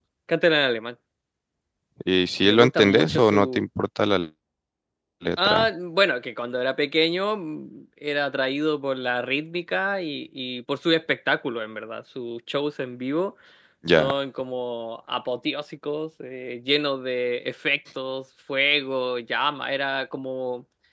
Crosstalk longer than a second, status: present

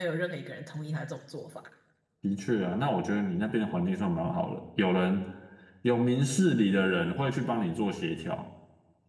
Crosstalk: none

